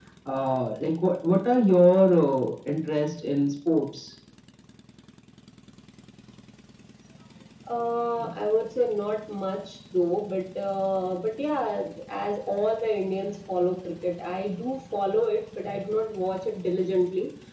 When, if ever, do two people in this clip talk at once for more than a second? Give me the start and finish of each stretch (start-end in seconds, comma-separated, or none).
none